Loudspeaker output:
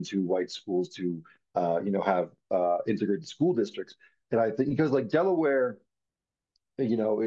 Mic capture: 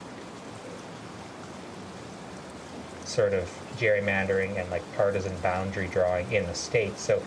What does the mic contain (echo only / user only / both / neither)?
user only